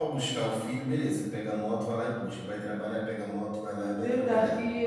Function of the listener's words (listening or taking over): taking over